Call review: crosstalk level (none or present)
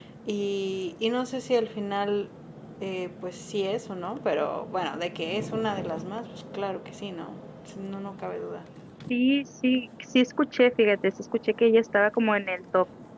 none